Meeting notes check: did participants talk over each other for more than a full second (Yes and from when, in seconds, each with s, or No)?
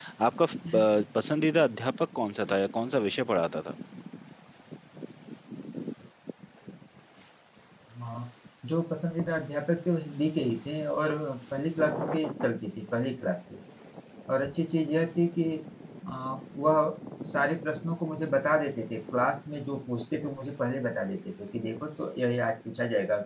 No